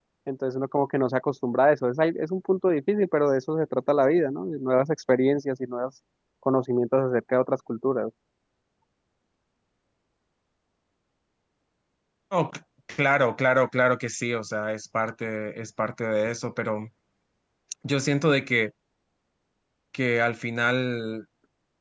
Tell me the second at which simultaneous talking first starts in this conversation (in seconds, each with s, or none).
none